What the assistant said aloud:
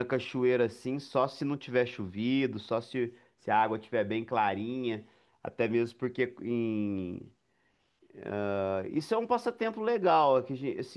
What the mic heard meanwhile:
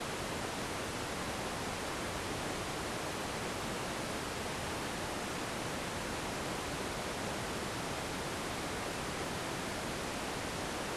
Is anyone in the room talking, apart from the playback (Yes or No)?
No